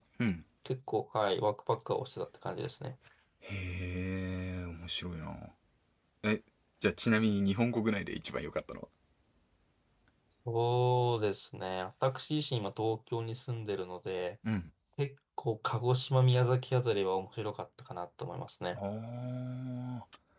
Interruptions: none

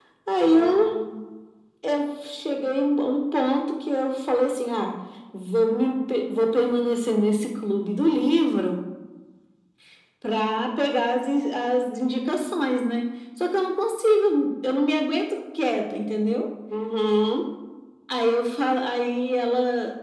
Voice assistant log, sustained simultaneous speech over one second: none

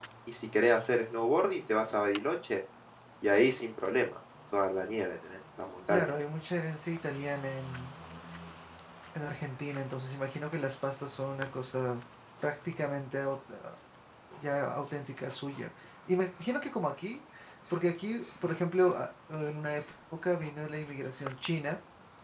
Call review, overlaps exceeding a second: none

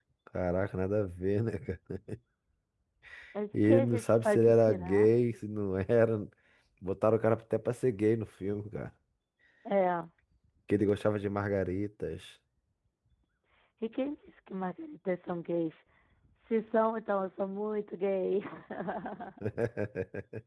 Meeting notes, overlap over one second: present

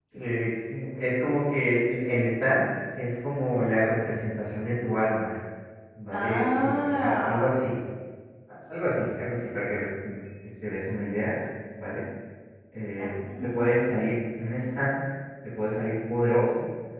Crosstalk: present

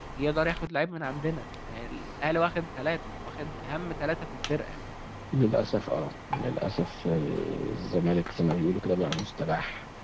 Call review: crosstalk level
none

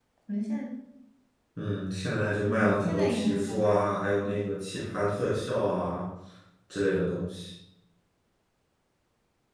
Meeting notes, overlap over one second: present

